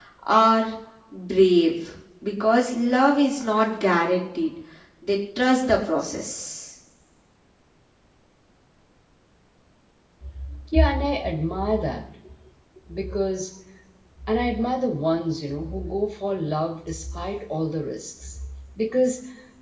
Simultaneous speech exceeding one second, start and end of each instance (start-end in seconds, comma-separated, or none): none